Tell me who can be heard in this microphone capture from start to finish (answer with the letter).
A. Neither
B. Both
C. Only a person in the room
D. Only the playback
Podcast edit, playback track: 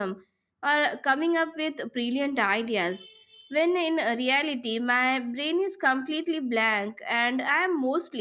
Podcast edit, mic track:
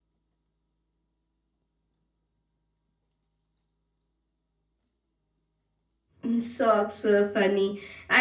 C